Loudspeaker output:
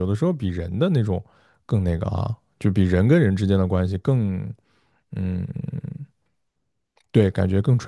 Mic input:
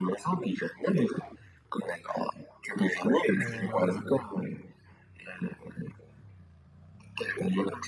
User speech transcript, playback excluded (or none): 哦